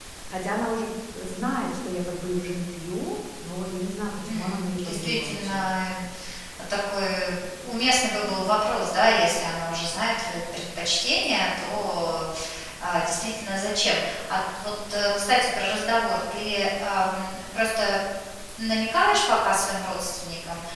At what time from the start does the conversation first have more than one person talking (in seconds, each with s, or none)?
4.3 s